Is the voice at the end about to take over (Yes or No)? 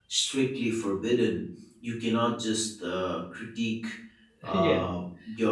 No